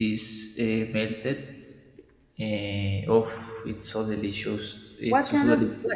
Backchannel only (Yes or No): No